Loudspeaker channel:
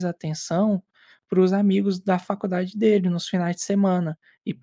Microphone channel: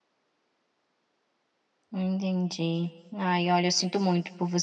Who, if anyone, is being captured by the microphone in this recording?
user only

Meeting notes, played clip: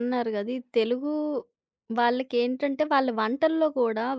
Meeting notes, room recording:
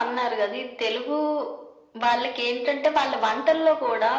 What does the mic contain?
echo only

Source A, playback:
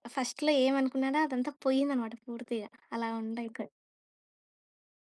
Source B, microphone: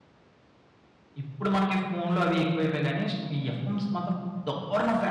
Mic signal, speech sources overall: user only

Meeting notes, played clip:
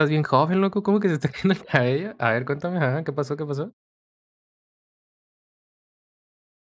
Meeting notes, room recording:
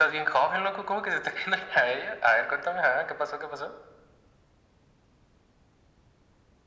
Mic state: echo only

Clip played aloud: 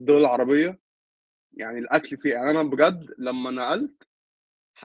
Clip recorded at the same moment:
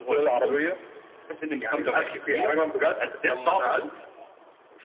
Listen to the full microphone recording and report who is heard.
both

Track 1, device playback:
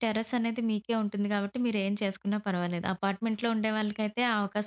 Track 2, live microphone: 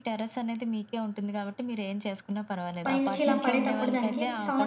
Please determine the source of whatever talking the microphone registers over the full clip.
both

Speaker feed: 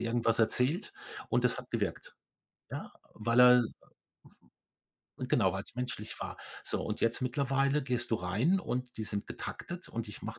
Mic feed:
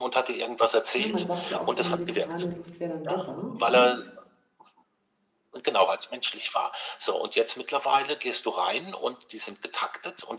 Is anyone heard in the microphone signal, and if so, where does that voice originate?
both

